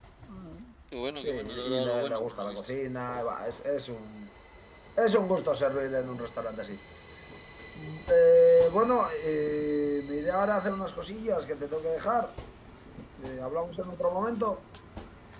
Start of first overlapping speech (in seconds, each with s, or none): 1.2 s